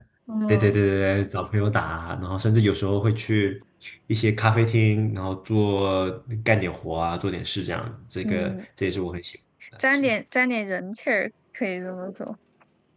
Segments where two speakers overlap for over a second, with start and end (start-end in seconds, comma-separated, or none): none